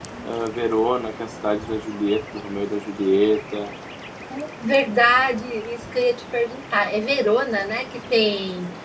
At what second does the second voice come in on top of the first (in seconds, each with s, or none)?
none